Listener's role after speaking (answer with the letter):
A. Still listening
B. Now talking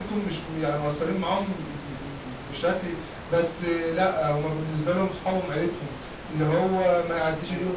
A